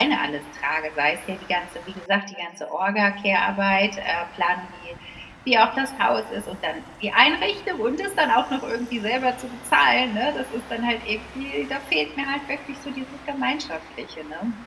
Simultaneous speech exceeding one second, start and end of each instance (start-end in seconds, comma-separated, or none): none